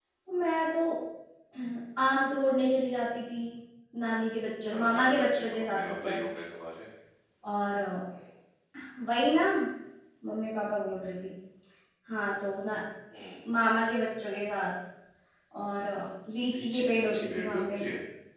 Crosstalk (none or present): present